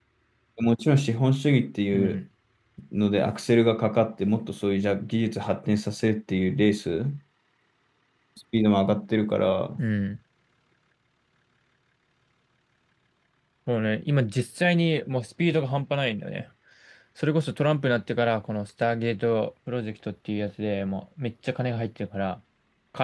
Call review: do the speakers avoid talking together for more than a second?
Yes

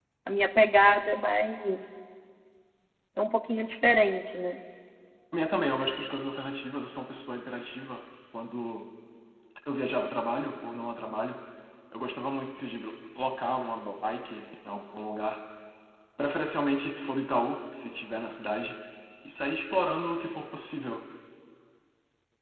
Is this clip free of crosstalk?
Yes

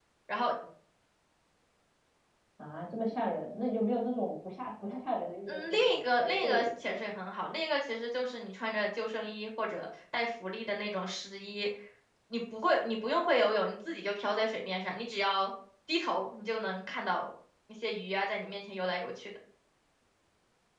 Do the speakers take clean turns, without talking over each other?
No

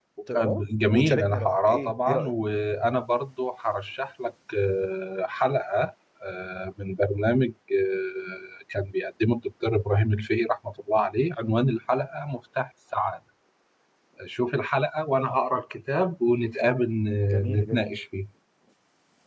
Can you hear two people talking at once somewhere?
Yes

